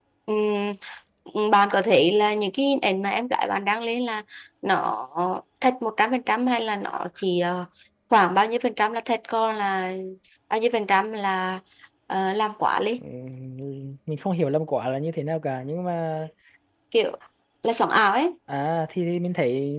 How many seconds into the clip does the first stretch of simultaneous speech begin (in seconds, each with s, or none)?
none